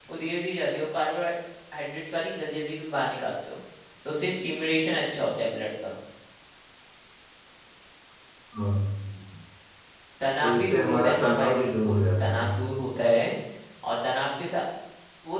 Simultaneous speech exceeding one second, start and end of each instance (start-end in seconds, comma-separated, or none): 10.4-12.5